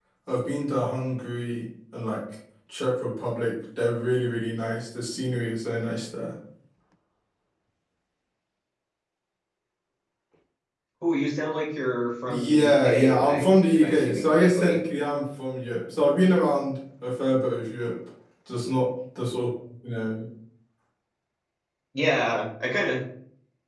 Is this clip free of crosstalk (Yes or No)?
No